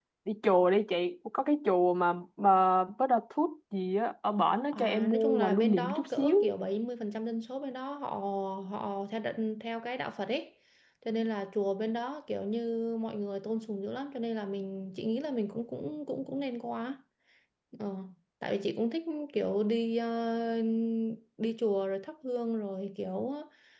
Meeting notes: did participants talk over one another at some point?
Yes, from 4.7 s

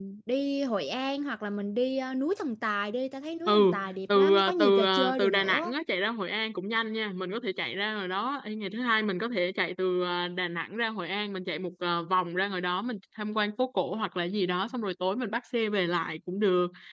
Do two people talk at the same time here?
Yes, from 3.5 s

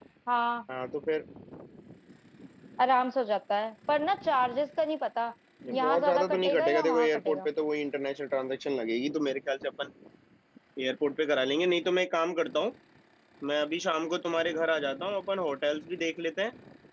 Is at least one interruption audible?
Yes, from 5.7 s

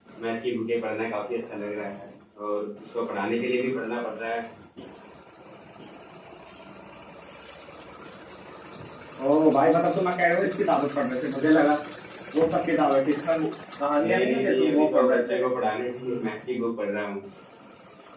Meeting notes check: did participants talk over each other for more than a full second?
Yes, from 14.0 s

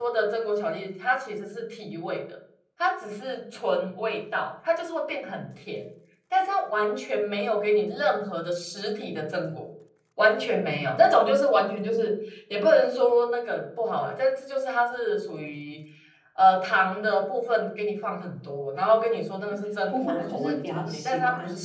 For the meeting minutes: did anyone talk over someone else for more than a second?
Yes, from 19.9 s

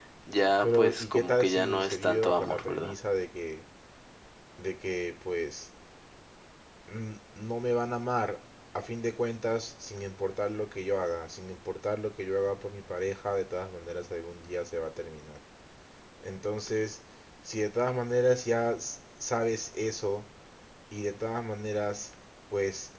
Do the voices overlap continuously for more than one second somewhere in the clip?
Yes, from 0.6 s

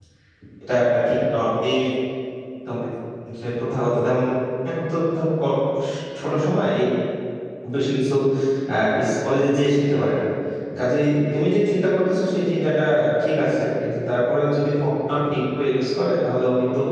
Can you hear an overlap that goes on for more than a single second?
No

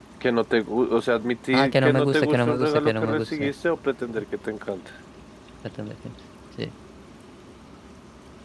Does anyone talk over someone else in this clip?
Yes, from 1.5 s

